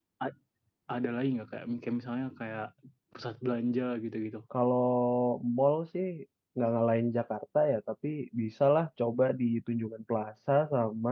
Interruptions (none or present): none